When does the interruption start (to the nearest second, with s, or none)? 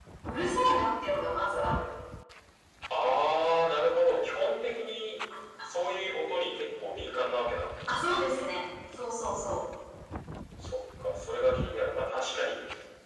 none